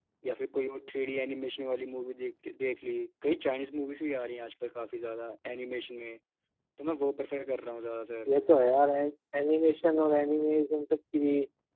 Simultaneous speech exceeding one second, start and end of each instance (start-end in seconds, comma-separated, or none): none